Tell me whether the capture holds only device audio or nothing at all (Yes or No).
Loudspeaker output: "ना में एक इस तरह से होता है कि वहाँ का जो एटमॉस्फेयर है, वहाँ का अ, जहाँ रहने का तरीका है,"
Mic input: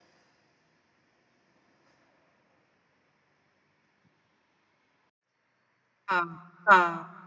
No